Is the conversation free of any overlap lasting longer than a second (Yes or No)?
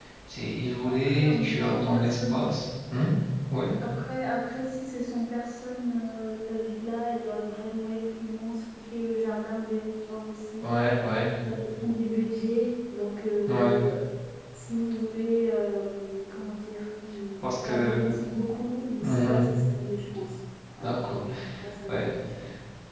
No